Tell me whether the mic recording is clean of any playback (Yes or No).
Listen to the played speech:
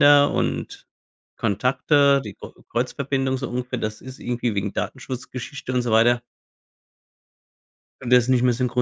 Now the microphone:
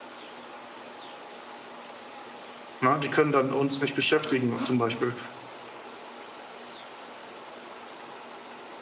Yes